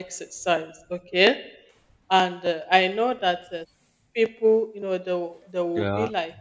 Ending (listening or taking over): listening